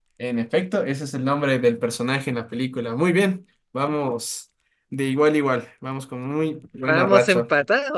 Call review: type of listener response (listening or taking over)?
taking over